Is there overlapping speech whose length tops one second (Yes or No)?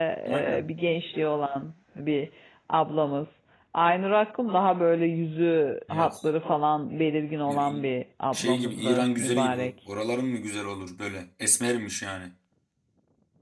Yes